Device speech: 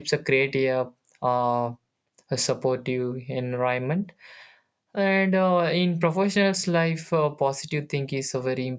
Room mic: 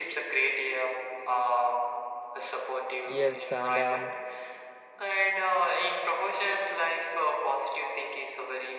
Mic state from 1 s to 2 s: echo only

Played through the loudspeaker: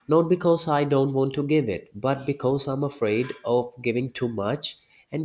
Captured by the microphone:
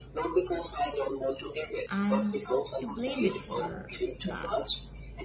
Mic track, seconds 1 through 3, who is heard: both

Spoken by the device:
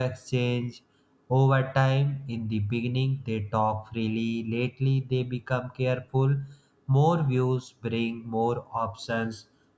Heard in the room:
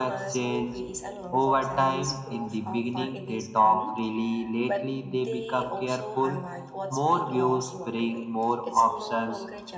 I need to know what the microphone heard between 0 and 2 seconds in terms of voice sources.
both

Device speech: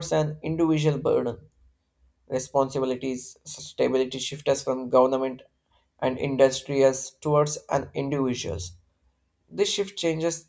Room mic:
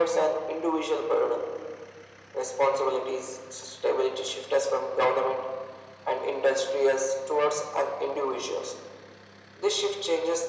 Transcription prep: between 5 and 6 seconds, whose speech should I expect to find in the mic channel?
echo only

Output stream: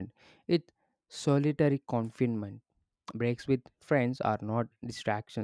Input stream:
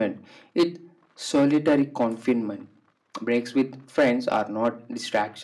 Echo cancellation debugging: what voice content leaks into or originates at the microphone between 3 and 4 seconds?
echo only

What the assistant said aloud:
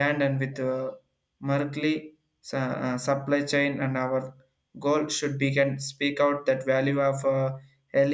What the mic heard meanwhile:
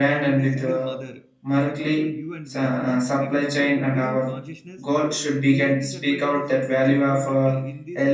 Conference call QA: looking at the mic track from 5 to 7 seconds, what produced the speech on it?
both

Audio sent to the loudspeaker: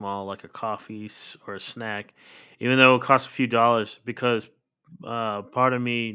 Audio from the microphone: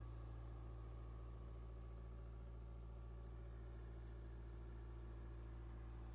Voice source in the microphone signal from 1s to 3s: neither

